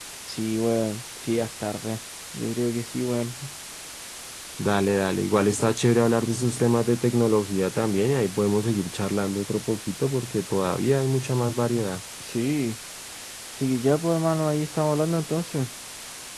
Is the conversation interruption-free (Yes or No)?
Yes